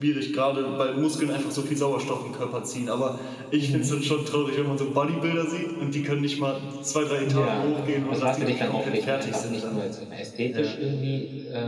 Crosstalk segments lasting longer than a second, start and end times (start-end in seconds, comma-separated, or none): 8.1-9.8